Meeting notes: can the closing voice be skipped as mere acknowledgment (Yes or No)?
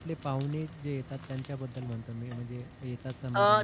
No